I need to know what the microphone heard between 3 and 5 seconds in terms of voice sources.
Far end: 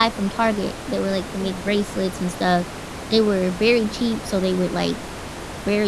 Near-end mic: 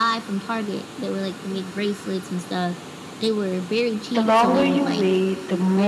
both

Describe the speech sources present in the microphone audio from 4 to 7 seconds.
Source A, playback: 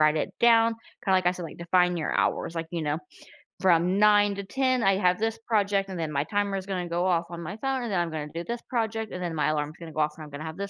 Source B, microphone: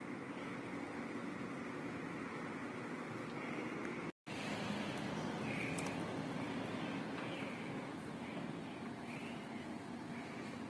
neither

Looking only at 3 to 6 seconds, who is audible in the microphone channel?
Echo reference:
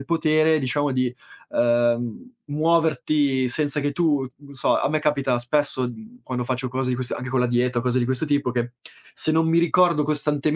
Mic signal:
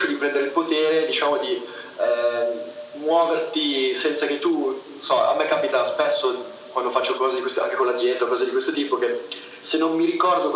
echo only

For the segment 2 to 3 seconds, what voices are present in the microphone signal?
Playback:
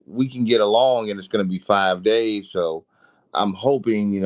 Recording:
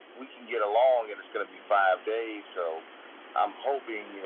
echo only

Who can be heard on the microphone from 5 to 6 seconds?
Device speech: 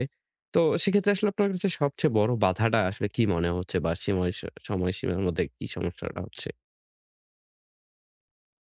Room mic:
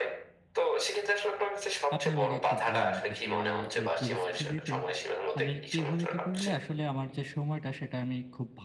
both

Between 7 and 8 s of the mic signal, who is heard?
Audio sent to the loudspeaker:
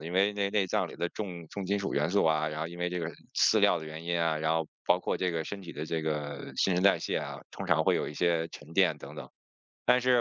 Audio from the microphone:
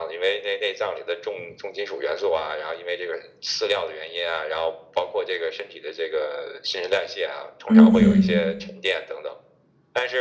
both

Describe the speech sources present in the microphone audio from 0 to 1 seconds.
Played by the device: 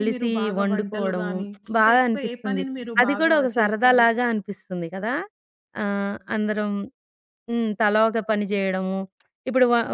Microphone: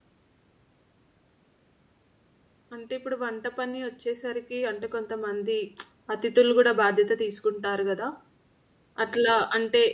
neither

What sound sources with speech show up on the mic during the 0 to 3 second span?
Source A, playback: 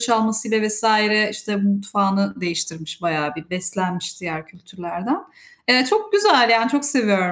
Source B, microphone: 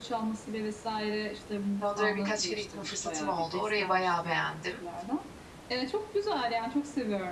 both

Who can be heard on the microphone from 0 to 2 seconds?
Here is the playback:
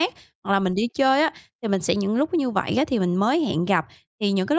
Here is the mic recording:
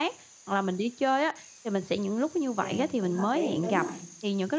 echo only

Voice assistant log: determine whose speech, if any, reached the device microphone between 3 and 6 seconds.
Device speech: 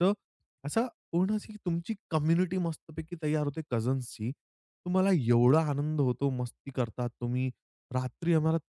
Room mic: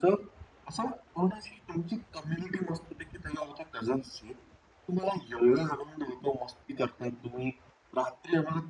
echo only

